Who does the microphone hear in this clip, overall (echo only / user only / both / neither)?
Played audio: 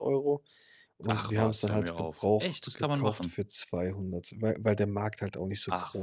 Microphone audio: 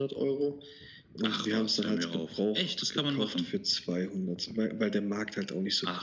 echo only